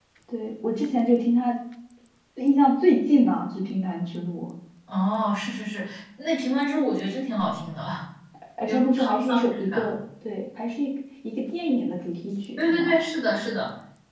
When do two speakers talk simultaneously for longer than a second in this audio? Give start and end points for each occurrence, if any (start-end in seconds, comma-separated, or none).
8.7-9.9